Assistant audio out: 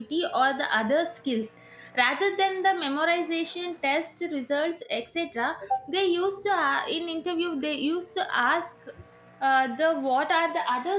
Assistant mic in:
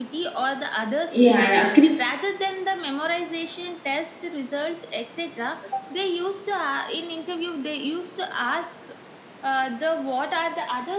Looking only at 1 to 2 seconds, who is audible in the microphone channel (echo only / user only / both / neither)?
both